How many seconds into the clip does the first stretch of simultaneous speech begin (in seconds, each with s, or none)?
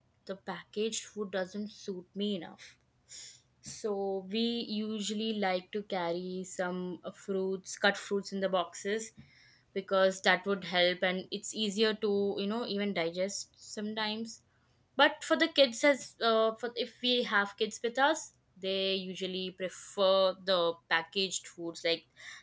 none